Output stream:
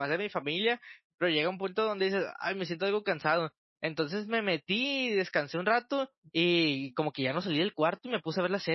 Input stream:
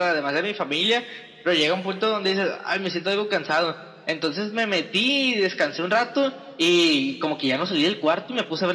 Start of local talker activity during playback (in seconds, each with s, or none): none